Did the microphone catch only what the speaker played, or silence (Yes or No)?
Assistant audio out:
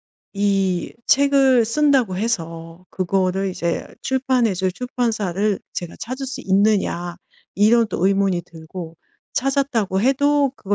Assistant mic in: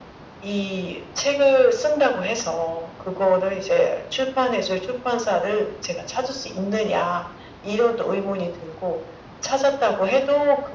Yes